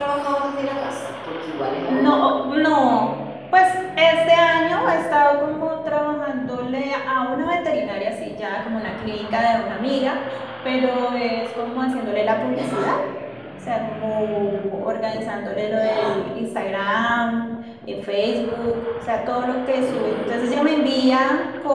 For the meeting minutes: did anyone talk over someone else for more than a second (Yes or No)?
No